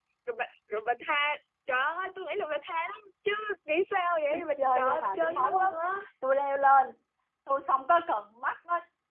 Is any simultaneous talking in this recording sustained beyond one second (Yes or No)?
Yes